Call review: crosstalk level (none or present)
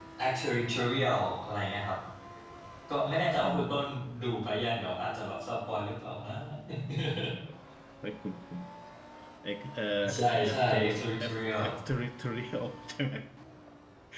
present